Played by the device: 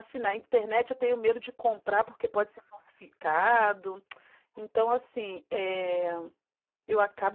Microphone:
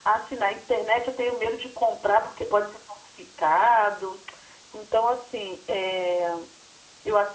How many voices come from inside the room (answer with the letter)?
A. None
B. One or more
A